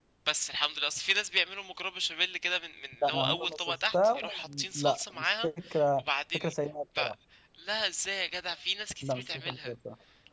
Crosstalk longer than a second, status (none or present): present